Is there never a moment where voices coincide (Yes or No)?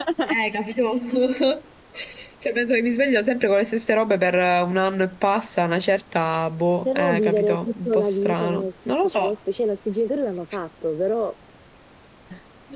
No